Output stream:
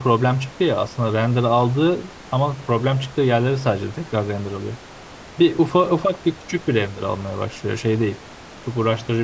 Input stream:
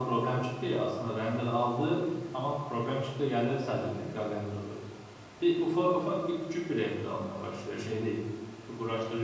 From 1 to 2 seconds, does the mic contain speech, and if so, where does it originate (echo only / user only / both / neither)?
echo only